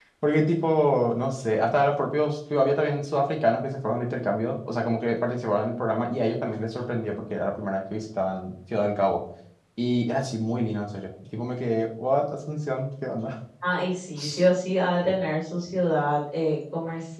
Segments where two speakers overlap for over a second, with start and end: none

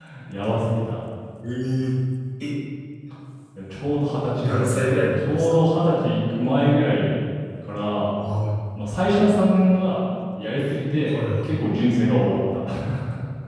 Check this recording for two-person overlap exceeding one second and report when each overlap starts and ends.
4.4-5.7

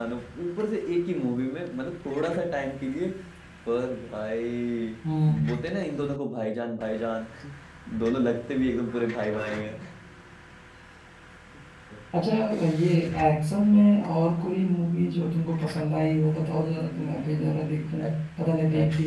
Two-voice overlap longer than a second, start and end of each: 16.7-18.1

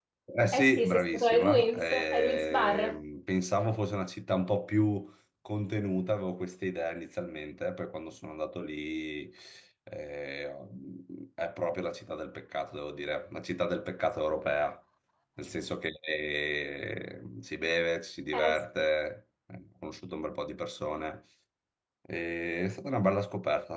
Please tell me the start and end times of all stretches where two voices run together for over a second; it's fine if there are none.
0.5-3.0

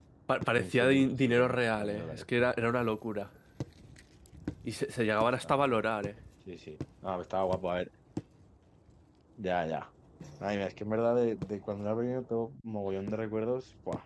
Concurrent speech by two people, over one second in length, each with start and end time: 0.5-2.2

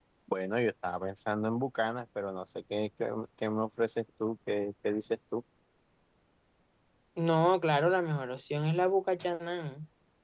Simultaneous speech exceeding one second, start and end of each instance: none

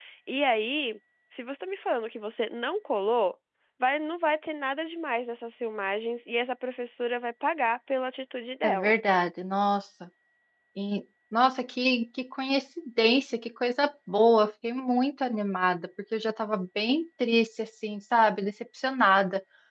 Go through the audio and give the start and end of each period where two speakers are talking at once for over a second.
none

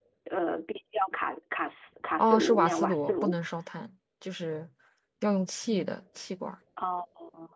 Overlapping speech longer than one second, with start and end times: 2.2-3.4

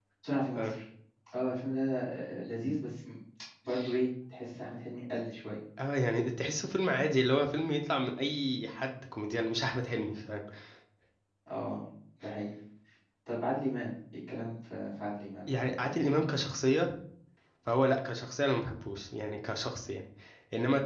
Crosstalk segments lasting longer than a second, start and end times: none

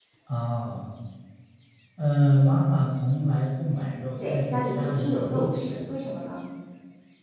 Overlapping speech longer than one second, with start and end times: 4.3-5.9

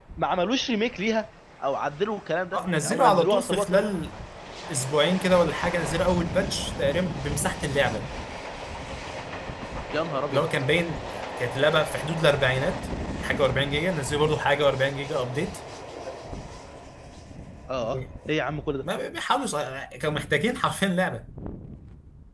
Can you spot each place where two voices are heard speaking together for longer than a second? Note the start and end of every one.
2.5-3.9

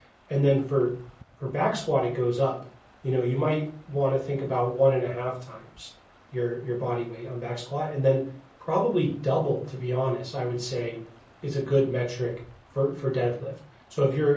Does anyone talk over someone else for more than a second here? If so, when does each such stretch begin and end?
none

